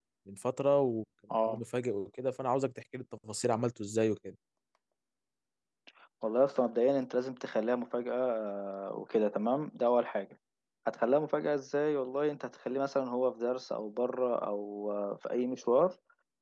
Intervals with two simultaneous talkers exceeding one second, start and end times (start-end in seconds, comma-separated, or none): none